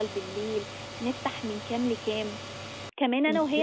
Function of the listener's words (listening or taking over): listening